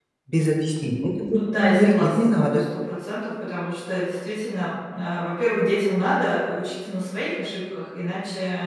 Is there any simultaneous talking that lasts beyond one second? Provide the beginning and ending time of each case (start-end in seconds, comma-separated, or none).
1.3-2.6